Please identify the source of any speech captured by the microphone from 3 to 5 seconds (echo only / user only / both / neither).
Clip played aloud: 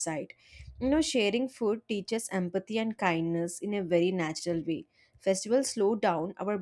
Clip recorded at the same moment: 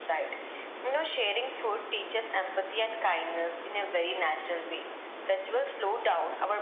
echo only